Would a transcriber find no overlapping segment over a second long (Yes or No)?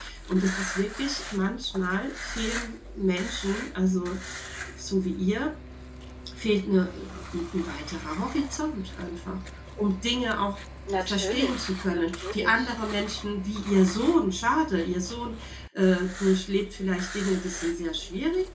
No